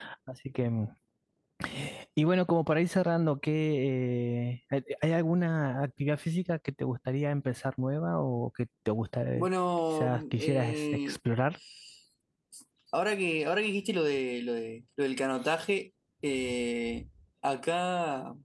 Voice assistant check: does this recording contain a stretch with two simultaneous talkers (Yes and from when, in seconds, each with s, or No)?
Yes, from 9.9 s